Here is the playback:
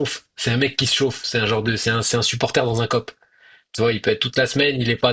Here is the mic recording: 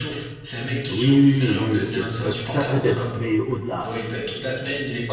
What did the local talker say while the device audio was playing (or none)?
Oui, oui, oui, oui, ok. Ouais, ça peut-être, mais au-delà.